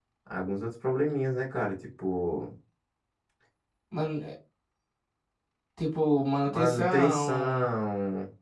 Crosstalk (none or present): present